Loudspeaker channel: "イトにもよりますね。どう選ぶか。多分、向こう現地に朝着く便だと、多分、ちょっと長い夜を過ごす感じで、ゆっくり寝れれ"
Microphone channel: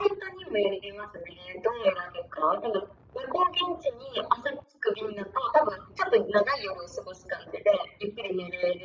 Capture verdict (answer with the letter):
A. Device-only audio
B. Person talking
A